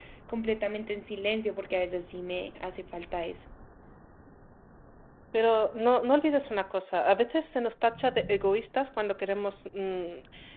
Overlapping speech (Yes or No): No